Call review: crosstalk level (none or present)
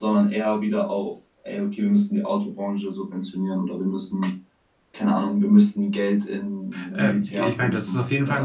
present